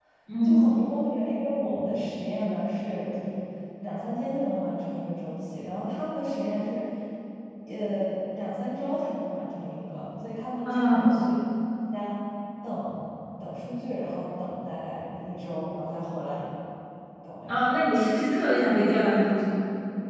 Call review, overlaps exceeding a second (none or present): none